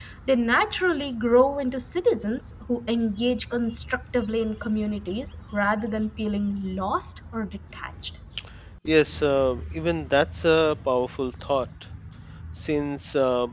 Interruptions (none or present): none